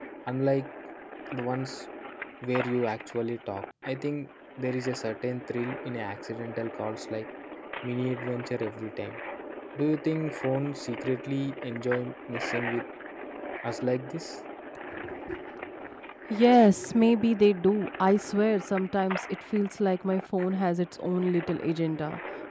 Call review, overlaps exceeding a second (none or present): none